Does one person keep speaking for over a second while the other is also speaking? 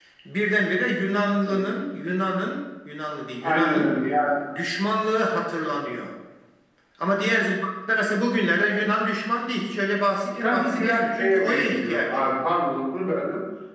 Yes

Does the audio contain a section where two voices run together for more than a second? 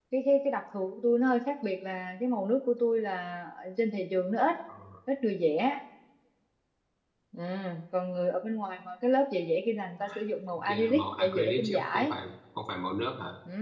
Yes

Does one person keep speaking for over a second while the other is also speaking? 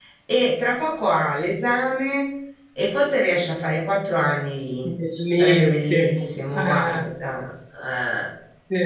Yes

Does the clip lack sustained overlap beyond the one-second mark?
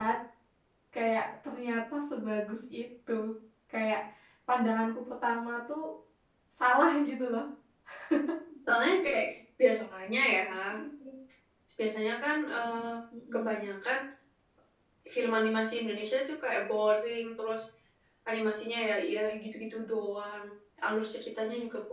Yes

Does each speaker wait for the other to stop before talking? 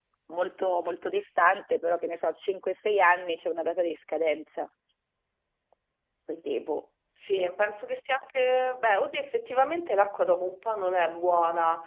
Yes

